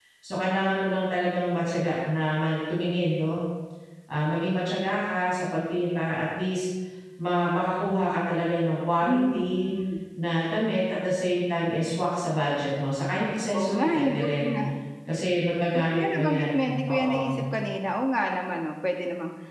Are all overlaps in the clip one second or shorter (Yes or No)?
No